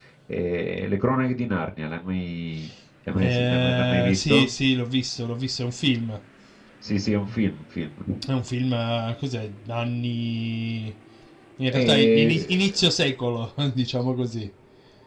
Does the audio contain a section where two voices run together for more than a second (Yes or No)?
Yes